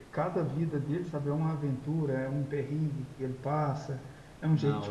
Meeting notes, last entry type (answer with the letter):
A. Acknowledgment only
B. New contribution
A